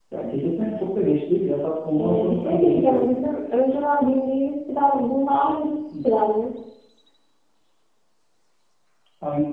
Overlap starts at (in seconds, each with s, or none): 2.0 s